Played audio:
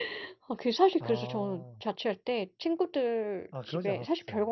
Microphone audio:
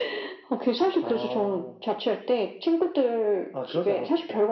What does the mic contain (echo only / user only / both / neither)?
echo only